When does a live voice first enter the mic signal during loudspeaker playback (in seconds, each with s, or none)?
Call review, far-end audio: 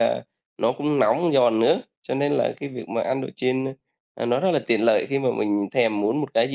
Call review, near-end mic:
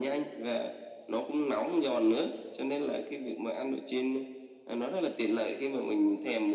none